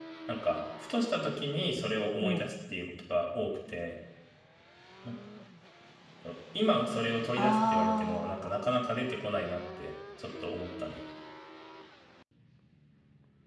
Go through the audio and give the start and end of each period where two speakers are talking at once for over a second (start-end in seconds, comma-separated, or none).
7.4-8.7